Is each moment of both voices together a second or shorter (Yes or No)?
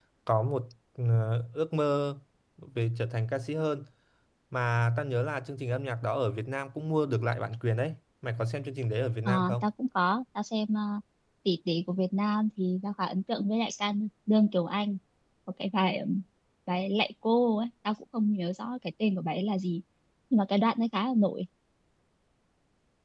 Yes